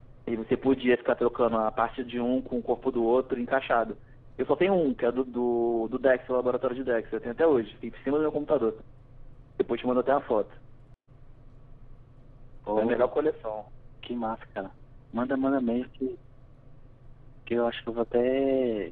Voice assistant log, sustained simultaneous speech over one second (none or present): none